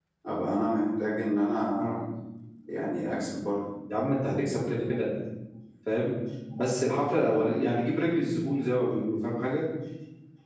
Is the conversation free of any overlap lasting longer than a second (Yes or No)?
Yes